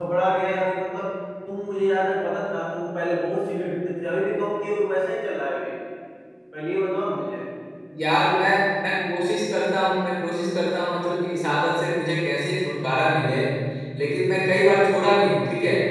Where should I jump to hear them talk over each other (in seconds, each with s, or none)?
none